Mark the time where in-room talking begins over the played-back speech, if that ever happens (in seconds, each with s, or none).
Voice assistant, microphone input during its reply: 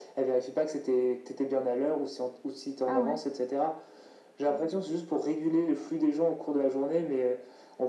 2.8 s